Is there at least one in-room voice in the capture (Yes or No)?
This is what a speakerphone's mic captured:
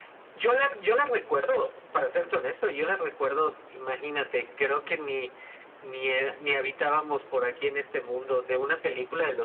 No